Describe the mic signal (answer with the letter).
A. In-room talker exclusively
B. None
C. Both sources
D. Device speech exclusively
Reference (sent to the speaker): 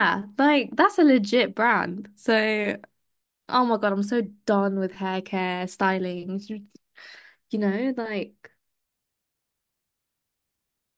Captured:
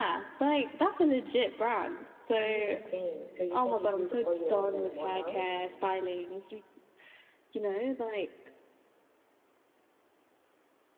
C